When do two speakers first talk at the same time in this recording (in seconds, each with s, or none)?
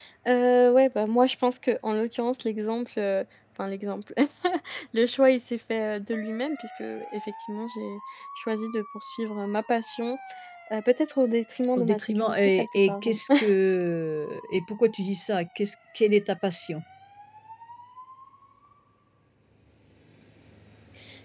11.8 s